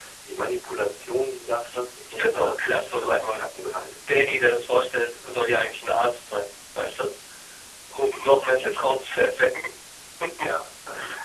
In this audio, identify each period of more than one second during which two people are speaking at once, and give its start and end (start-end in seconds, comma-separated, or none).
2.1-3.4